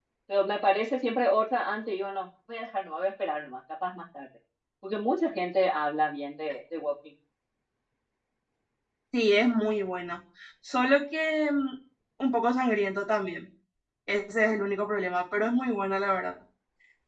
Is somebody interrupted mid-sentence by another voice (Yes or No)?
No